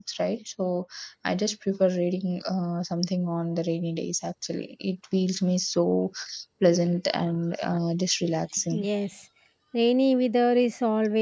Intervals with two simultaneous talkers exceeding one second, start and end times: none

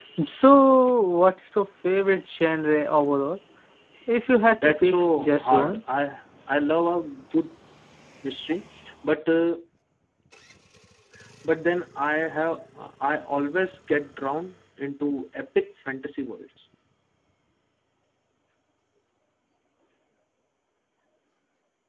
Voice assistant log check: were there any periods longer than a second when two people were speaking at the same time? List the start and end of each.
4.5-5.8

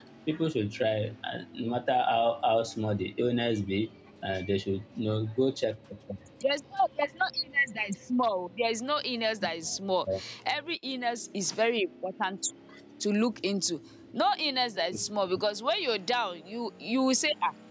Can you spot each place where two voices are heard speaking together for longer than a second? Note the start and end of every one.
none

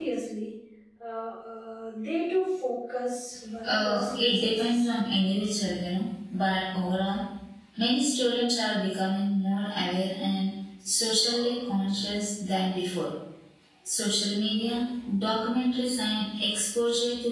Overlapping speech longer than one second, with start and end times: 3.7-4.9

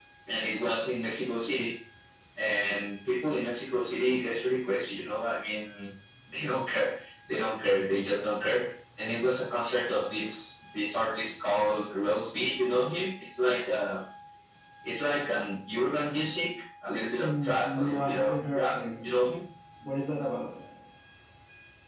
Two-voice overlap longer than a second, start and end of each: 17.2-18.8

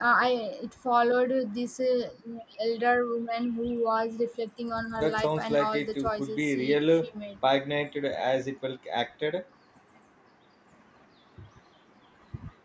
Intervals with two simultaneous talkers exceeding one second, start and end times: 5.0-7.1

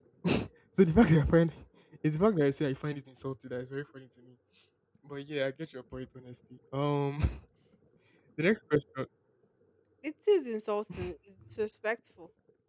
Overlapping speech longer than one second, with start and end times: none

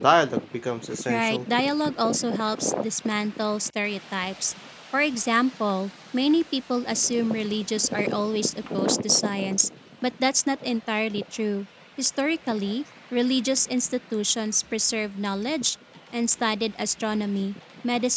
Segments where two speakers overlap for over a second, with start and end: none

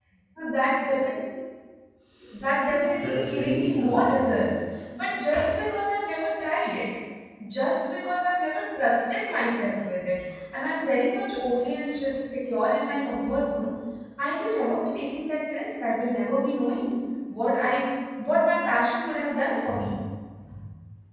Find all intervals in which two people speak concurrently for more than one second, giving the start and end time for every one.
2.9-4.6

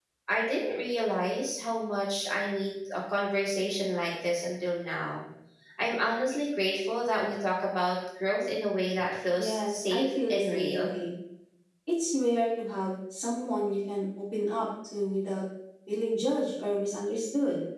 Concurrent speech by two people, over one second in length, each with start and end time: 9.4-10.9

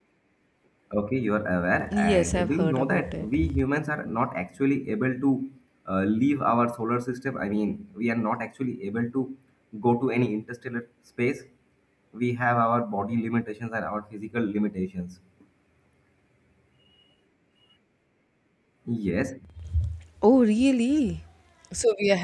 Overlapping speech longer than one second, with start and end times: 1.9-3.4

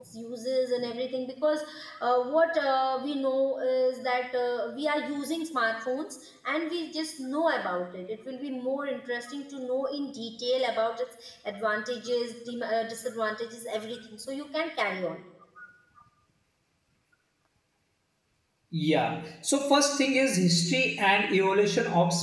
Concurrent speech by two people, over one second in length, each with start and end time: none

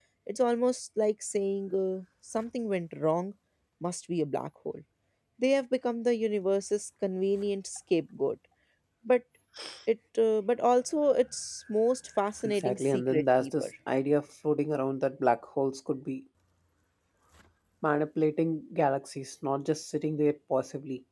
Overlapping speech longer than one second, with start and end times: 12.4-13.7

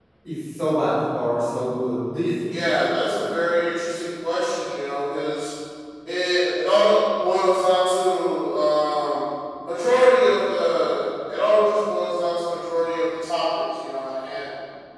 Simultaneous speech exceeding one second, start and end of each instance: none

